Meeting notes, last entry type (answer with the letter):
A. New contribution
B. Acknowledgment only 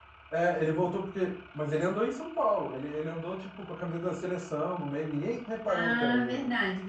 A